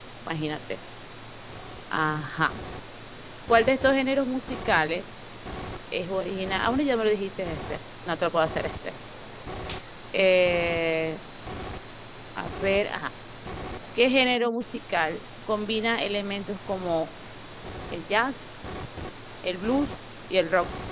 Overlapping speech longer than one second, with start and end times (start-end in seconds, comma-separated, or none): none